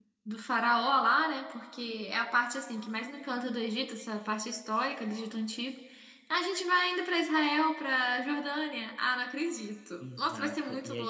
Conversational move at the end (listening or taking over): taking over